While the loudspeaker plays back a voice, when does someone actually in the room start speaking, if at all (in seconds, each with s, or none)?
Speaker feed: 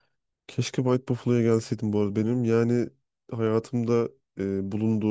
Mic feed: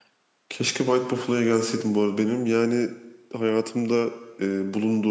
none